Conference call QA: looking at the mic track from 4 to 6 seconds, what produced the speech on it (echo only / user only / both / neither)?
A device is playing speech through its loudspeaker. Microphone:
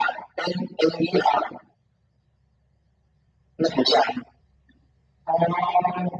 echo only